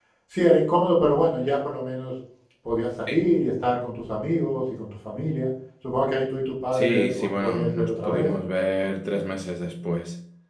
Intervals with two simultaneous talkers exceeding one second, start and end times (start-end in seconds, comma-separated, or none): 6.7-8.3